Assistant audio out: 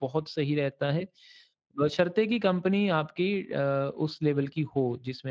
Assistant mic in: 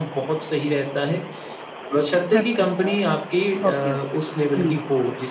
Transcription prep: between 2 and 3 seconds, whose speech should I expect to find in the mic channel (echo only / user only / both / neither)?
both